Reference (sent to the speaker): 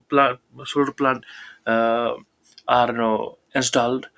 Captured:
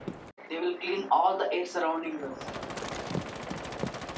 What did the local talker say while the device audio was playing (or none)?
they will clean all the air surrounding us